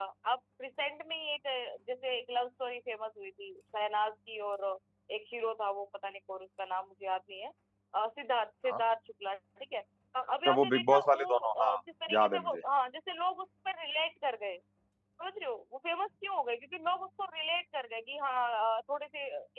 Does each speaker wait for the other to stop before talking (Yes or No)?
No